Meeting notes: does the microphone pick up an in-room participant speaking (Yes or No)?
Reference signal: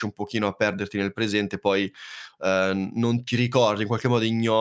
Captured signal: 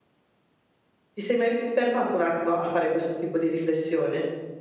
Yes